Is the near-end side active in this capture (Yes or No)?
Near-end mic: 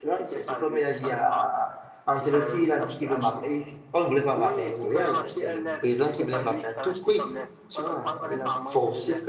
Yes